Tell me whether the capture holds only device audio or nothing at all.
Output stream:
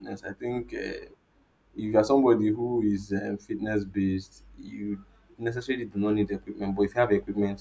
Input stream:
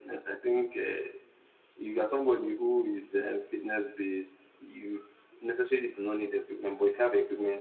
Yes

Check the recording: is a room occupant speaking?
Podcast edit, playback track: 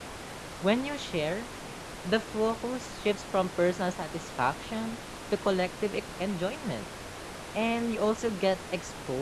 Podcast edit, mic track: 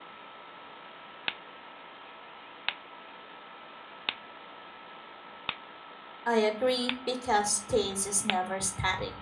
Yes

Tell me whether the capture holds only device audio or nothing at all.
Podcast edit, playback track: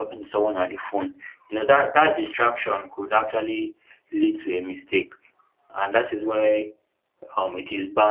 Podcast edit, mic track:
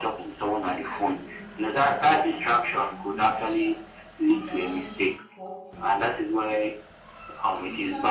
No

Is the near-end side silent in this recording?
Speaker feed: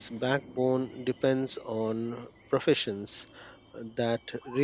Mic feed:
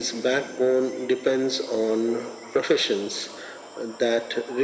Yes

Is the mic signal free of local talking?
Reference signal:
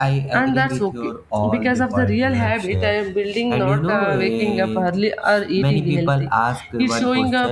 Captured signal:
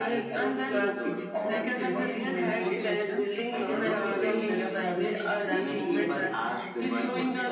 No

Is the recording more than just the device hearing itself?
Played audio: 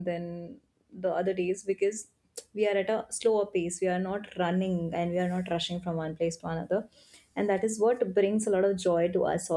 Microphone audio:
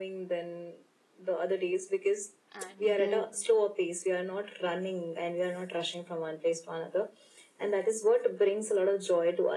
Yes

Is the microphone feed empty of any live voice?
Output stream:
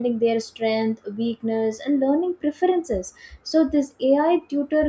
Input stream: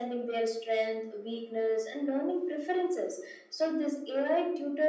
Yes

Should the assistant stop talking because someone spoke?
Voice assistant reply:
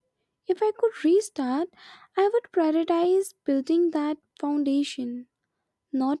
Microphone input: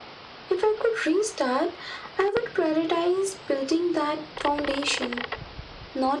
No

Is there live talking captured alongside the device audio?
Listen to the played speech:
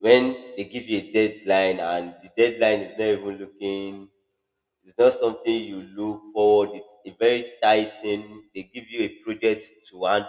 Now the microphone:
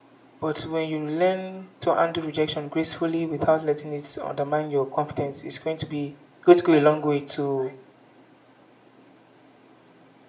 Yes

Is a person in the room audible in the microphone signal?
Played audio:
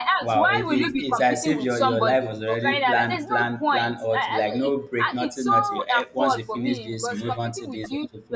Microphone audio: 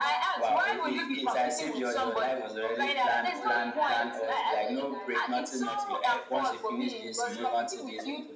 Yes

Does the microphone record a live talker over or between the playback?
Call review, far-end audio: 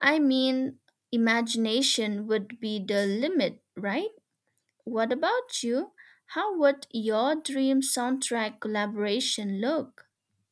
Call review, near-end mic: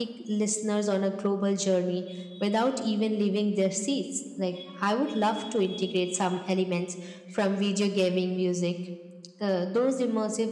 Yes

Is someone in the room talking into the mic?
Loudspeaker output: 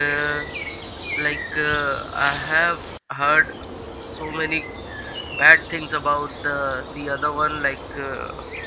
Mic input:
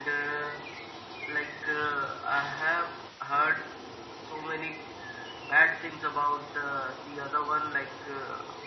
No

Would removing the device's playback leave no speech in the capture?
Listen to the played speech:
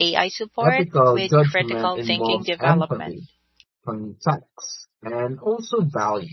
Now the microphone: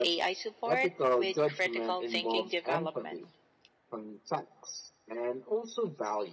Yes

